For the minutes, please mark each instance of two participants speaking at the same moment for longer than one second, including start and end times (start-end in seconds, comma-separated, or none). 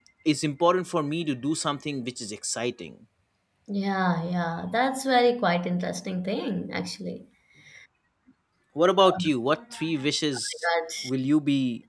none